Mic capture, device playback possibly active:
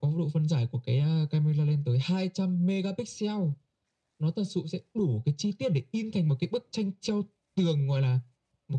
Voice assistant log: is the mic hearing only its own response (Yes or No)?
Yes